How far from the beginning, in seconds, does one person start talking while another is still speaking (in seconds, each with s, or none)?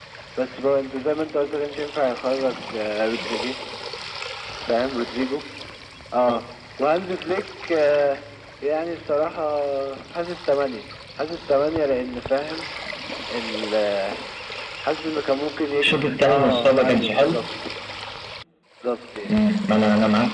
15.8 s